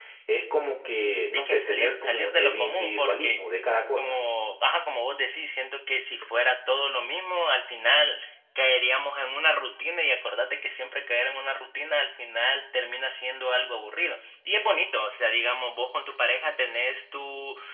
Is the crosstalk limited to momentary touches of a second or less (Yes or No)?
No